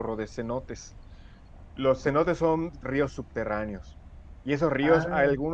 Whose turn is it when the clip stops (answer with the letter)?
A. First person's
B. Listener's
A